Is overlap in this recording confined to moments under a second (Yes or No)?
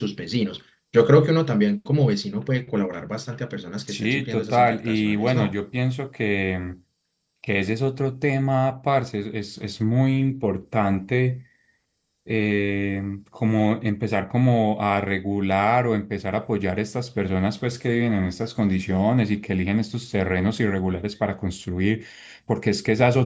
No